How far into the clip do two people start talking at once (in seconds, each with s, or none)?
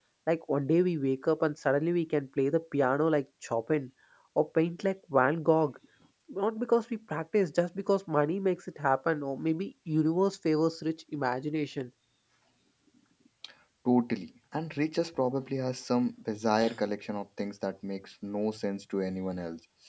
none